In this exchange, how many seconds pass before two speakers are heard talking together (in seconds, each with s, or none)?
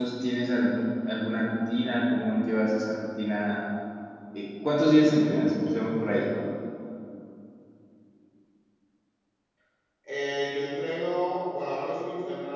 none